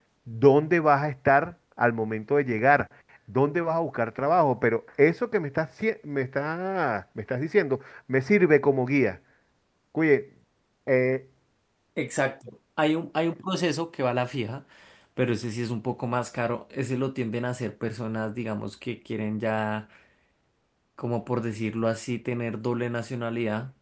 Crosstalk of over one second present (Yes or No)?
No